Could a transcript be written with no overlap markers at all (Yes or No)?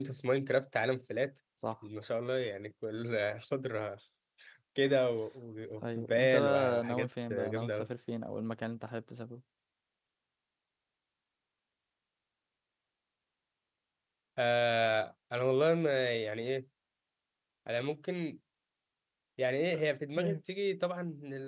No